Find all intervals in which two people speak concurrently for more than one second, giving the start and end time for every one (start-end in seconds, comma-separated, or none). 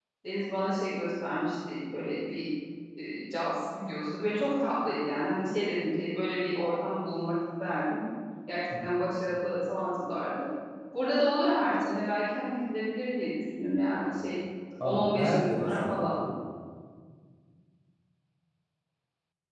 14.8-16.1